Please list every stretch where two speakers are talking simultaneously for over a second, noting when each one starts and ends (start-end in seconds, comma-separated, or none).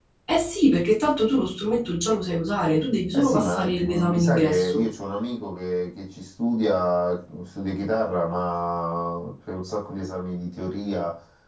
3.1-4.8